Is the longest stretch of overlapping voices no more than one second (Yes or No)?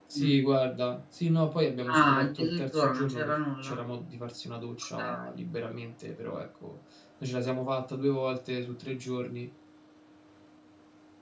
No